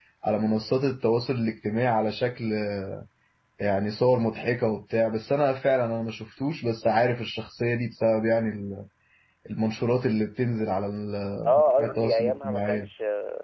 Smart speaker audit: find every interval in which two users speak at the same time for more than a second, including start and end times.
11.6-12.9

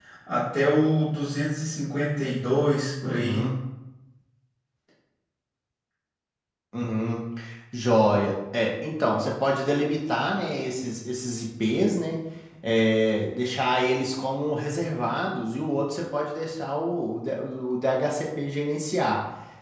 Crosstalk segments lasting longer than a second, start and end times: none

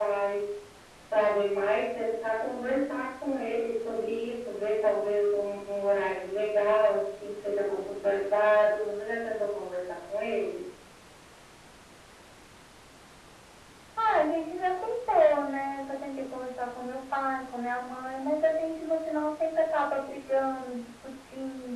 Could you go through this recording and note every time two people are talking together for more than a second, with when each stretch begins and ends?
none

